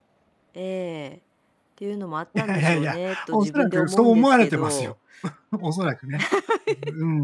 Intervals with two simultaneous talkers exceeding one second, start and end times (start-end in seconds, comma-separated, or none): 2.4-4.9